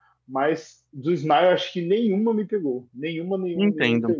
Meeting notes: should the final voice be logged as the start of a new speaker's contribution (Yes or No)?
Yes